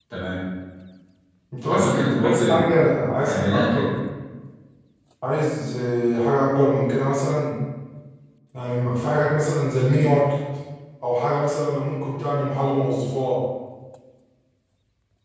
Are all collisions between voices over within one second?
No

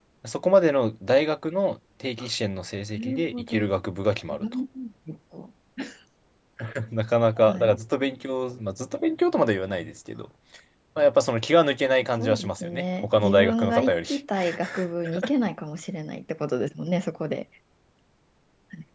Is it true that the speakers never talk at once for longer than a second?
No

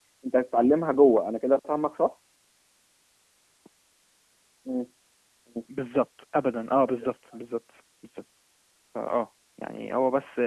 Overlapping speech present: No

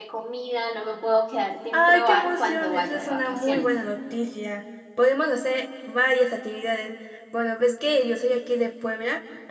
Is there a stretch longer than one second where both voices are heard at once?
Yes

